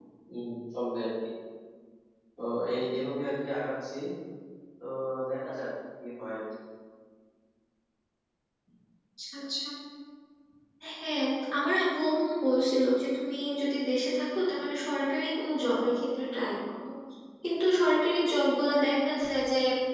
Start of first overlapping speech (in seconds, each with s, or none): none